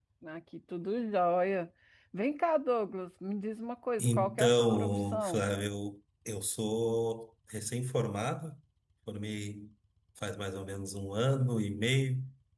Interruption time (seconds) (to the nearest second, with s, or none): 4 s